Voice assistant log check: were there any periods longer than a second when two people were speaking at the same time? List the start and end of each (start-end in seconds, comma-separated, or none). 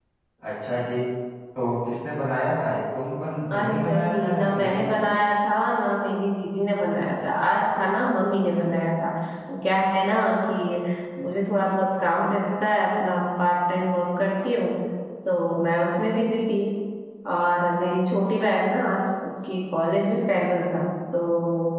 3.5-5.0